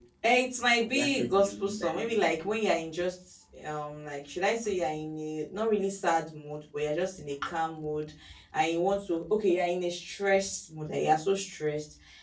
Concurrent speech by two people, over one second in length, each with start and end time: 0.9-2.4

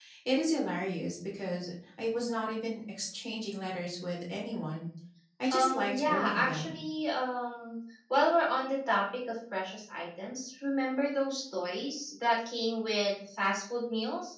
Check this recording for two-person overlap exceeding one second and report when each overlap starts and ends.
5.5-6.7

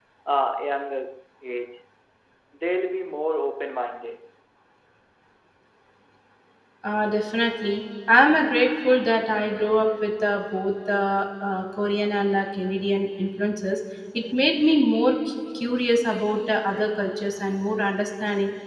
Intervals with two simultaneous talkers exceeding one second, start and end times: none

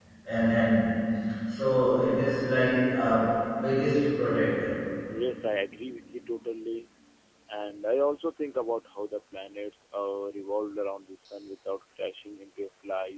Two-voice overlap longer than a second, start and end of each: none

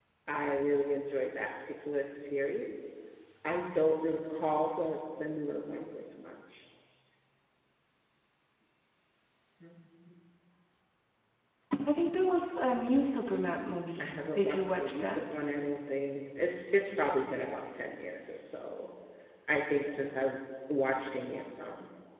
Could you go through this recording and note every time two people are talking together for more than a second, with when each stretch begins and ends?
14.0-15.2

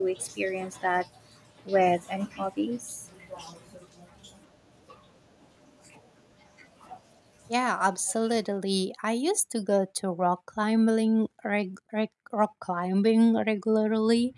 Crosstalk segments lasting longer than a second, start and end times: none

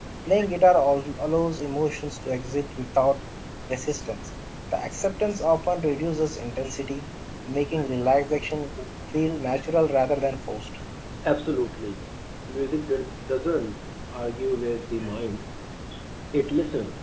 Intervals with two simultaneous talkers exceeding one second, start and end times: none

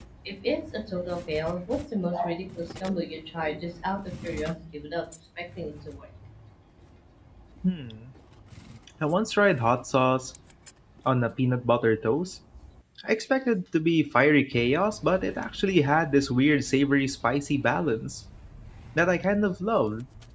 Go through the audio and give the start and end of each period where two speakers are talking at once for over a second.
none

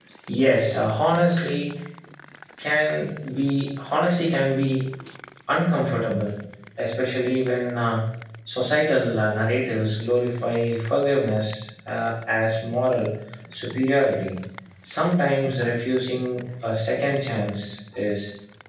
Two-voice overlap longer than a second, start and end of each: none

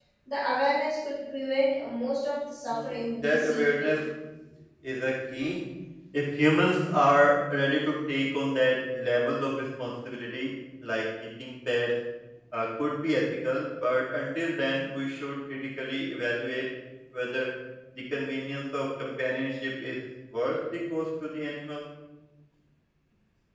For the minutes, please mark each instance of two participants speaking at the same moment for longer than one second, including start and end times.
2.7-3.9

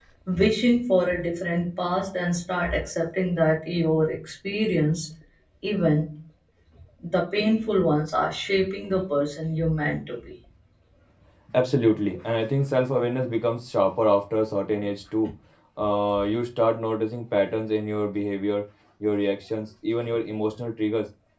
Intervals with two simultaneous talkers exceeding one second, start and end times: none

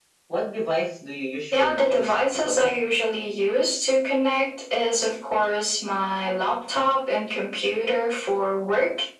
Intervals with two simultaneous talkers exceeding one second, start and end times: 1.5-2.7

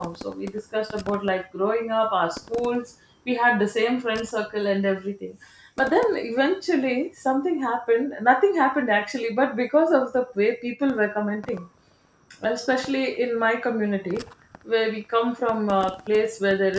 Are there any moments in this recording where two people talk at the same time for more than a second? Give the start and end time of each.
none

